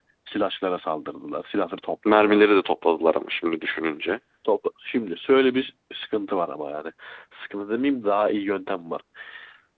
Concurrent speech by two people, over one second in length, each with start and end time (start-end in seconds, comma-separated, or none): none